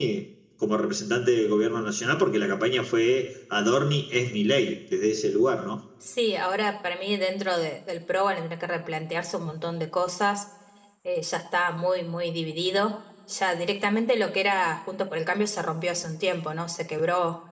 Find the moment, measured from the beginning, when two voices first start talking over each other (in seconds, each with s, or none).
none